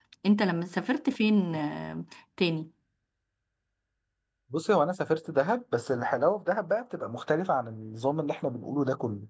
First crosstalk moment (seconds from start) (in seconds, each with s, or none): none